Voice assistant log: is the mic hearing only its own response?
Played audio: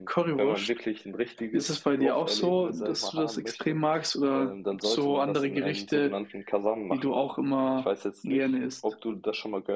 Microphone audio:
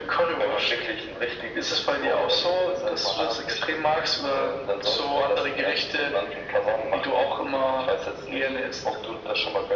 Yes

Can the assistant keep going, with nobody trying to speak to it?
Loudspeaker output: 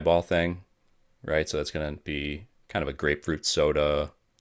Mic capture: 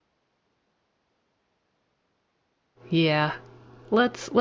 No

